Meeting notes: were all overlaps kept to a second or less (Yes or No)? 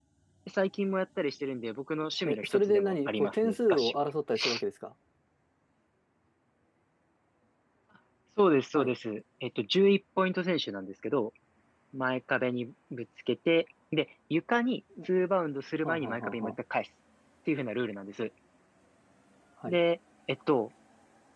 No